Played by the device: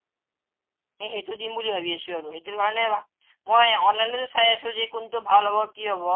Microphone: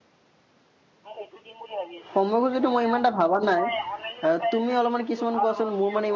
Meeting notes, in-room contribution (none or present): present